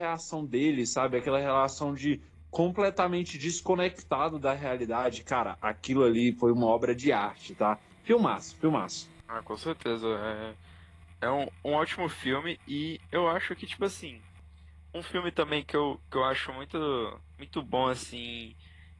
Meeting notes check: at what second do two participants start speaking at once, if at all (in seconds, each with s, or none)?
none